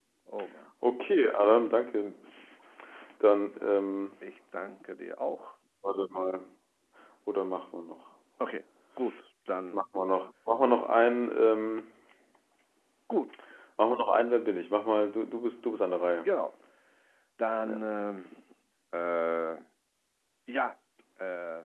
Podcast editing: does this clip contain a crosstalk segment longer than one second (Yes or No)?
No